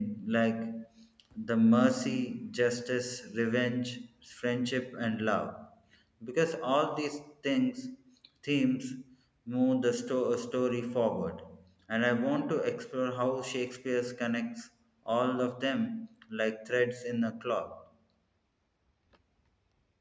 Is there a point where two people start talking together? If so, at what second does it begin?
none

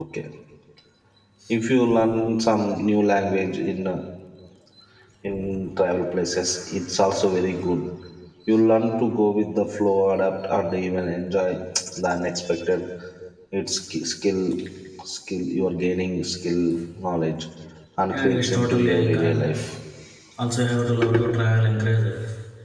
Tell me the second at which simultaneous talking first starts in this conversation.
18.1 s

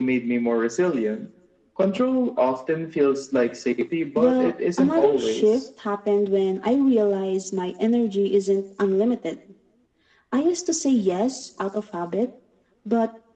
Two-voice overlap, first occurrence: 4.2 s

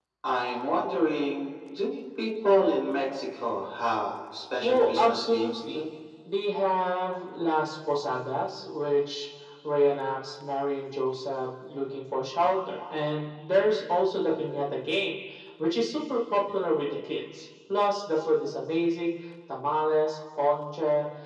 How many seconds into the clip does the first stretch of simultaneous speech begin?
4.6 s

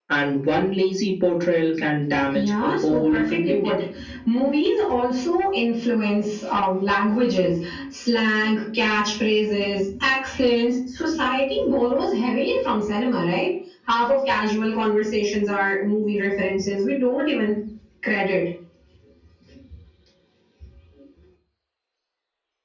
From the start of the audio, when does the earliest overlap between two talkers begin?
2.1 s

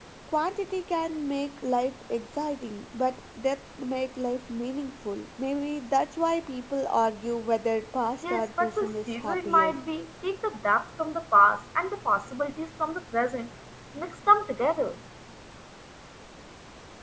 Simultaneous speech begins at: 8.2 s

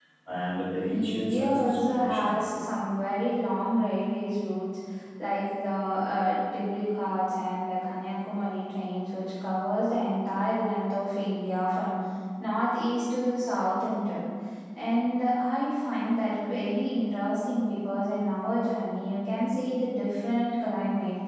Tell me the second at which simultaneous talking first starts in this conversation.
0.9 s

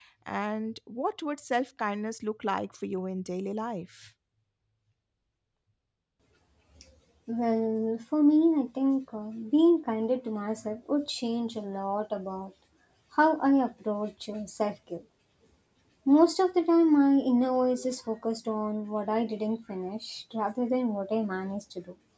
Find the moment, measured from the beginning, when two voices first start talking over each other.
none

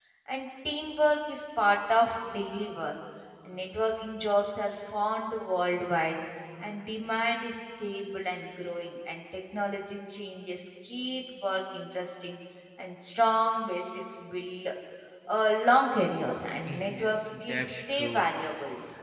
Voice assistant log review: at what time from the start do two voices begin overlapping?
16.6 s

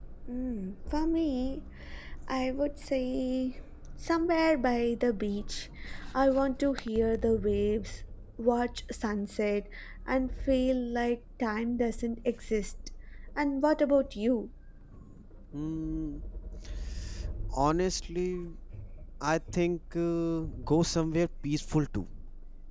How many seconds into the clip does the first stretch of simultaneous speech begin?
none

